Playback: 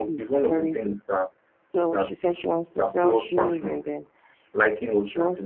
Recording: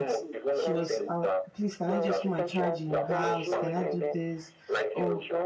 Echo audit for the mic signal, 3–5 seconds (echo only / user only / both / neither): both